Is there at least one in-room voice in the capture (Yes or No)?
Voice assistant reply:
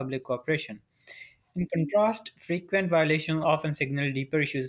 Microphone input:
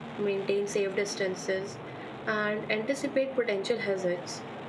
Yes